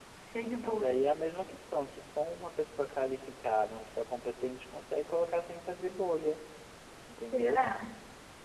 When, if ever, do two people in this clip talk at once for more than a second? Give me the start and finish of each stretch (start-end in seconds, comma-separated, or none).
none